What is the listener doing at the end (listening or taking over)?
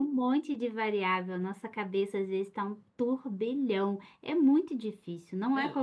taking over